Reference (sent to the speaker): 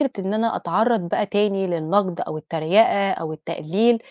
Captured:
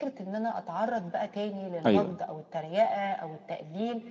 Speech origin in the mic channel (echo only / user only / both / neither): both